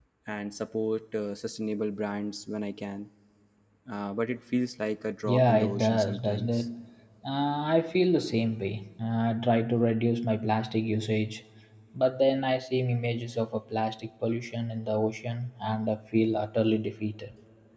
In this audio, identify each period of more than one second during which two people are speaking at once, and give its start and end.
5.3-6.7

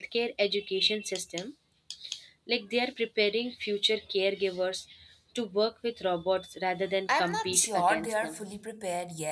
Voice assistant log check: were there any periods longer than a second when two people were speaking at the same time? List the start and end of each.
7.1-8.4

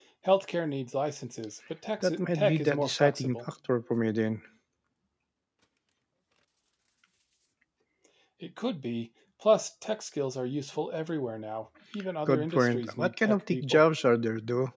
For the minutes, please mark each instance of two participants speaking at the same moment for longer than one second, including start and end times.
2.0-3.4, 12.3-13.8

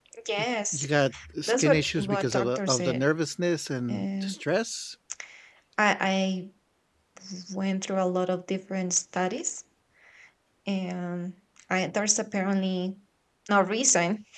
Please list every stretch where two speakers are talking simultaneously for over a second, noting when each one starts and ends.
1.5-3.0

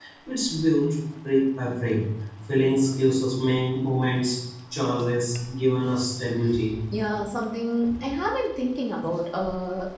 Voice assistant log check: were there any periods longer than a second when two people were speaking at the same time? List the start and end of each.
none

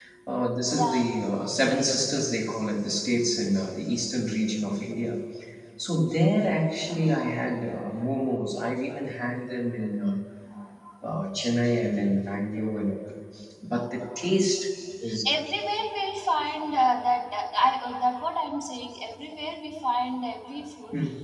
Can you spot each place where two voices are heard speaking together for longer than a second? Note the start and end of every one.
none

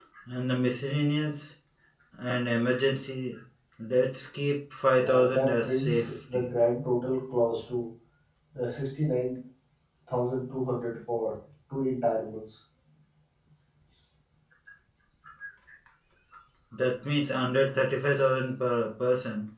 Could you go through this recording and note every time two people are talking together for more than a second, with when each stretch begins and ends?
5.0-6.5

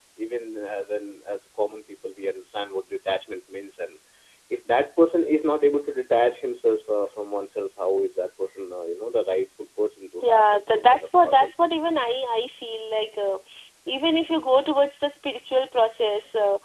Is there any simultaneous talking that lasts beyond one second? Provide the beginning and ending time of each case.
10.2-11.6

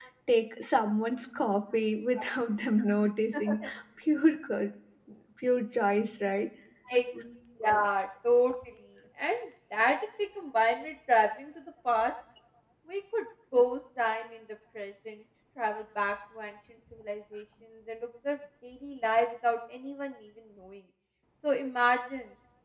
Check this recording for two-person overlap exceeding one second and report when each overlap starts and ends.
none

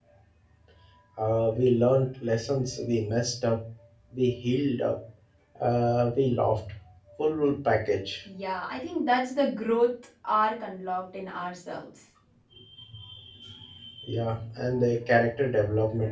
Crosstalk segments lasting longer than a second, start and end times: none

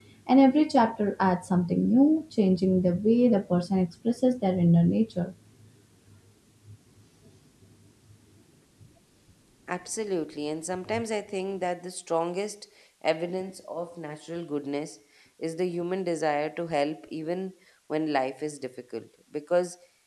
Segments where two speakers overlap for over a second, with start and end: none

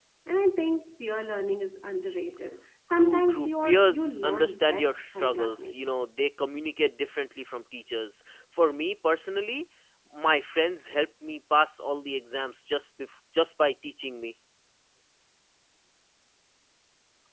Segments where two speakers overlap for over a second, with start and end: 2.9-5.7

